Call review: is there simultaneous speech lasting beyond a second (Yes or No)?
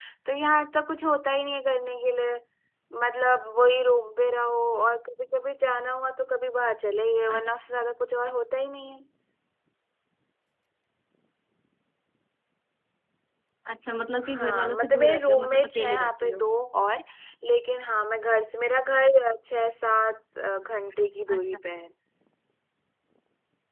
Yes